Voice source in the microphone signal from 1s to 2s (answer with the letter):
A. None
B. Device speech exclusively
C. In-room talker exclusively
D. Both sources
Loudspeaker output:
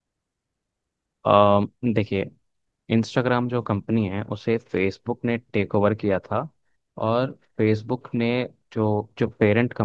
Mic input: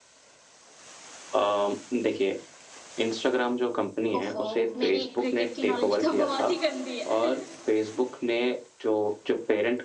B